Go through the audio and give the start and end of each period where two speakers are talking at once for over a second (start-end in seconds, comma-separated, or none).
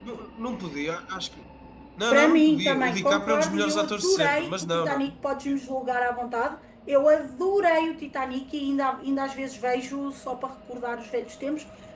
2.1-5.0